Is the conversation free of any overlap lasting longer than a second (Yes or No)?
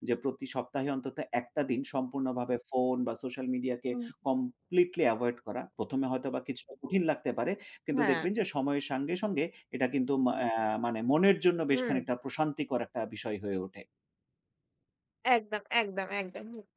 Yes